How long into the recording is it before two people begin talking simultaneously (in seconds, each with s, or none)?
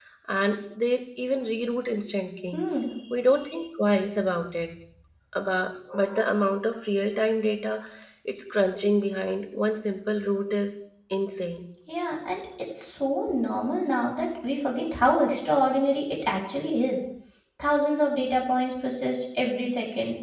none